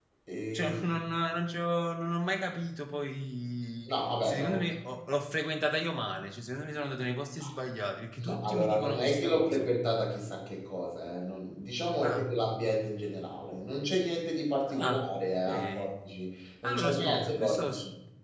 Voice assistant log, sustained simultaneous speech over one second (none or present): present